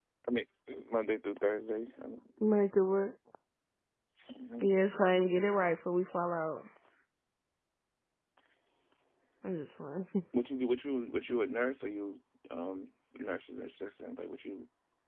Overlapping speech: No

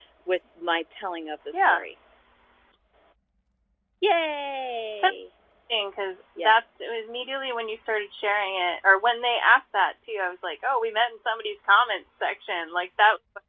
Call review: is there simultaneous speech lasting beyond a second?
No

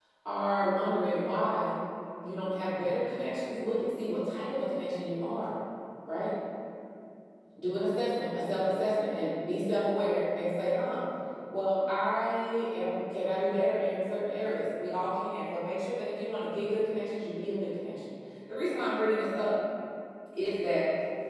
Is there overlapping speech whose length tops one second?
No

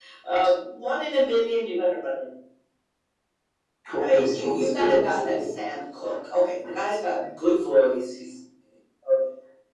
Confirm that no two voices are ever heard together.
No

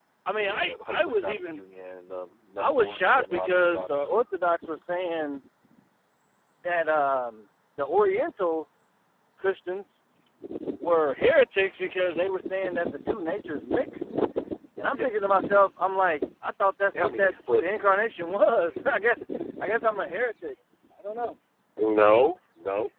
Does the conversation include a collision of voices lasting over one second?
Yes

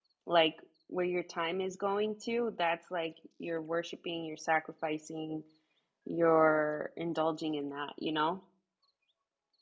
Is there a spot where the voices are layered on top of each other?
No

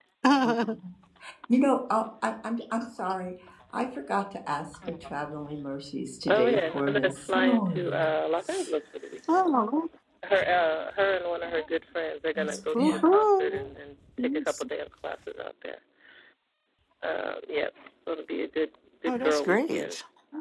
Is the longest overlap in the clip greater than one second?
Yes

